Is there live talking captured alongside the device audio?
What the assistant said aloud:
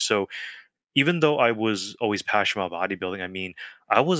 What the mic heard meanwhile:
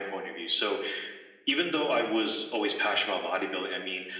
No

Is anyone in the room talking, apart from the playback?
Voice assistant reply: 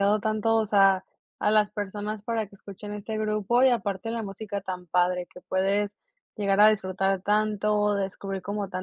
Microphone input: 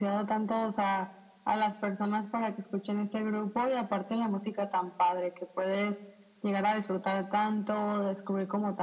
No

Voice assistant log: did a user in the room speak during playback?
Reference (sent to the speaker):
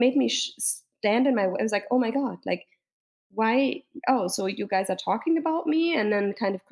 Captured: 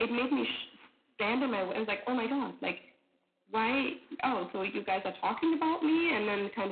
No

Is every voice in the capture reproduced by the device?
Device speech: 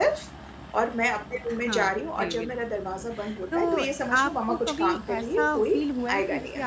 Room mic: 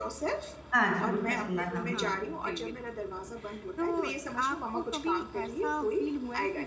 No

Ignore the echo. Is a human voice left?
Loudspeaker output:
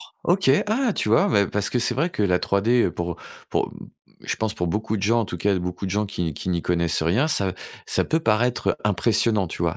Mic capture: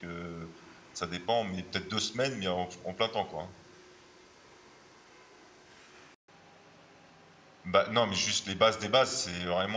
Yes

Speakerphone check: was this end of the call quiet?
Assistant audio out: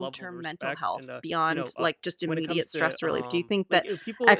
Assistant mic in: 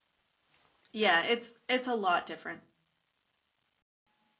No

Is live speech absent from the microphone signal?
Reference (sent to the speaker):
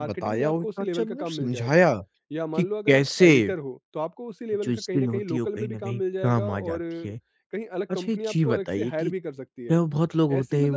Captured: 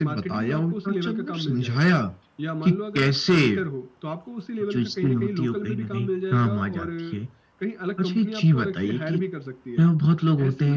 Yes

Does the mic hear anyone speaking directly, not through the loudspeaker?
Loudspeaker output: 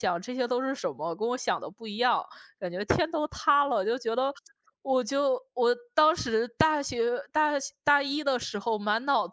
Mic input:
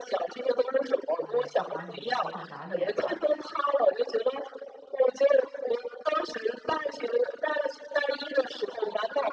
Yes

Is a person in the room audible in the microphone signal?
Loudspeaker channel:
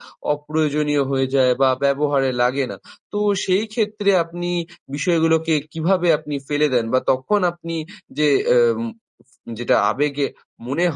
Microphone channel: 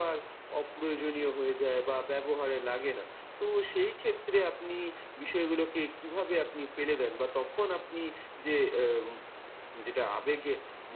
No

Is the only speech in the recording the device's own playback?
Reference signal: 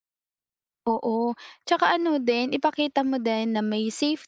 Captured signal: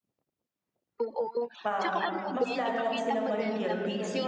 No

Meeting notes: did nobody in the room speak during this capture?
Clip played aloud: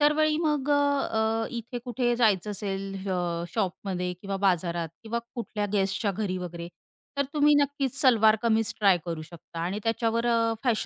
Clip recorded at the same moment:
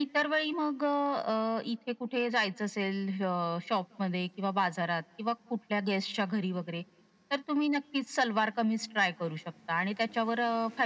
Yes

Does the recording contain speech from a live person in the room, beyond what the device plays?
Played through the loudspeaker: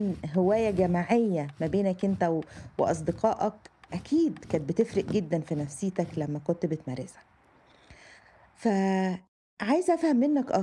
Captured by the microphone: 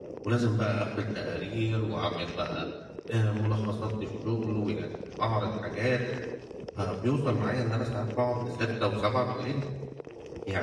Yes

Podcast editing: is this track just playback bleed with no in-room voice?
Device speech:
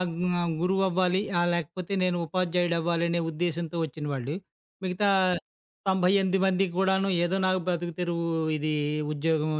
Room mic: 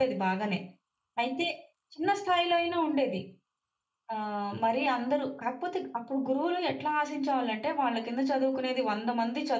No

